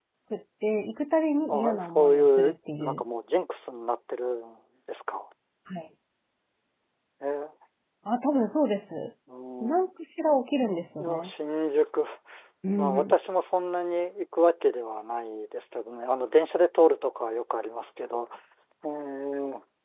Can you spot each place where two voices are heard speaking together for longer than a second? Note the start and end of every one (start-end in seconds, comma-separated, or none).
1.5-3.0